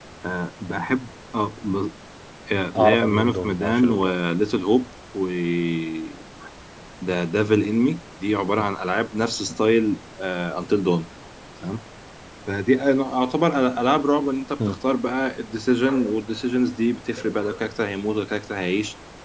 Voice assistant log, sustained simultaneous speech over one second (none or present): present